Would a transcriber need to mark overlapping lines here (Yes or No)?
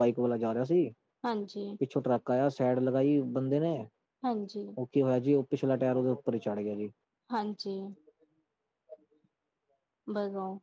No